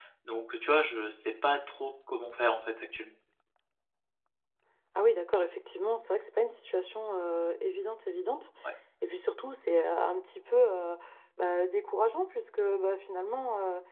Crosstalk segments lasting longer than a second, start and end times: none

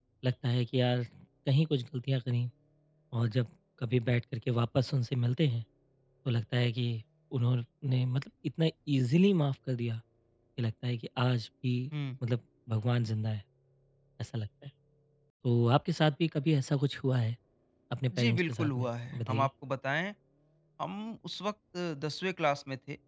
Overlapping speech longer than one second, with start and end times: 18.1-19.5

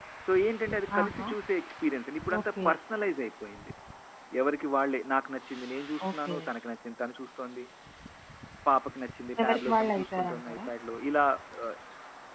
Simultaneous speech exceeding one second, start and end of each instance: 9.4-10.7

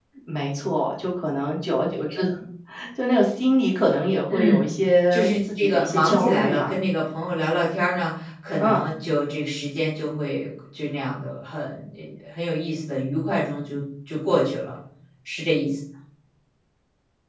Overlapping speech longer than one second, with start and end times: 5.1-6.7

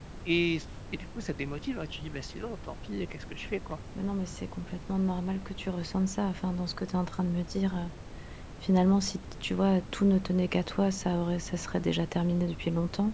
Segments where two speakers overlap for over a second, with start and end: none

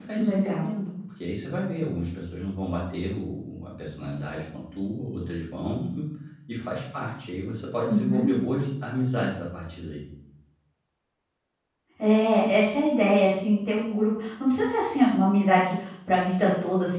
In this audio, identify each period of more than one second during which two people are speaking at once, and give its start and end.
none

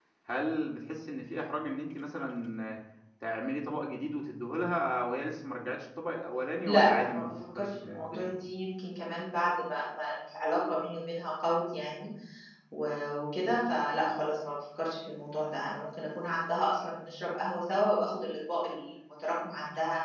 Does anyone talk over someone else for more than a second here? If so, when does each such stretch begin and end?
6.7-8.3

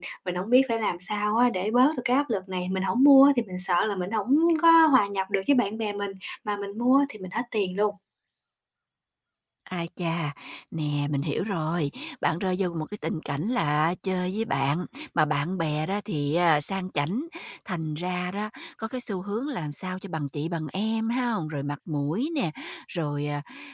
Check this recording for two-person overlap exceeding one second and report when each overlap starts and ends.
none

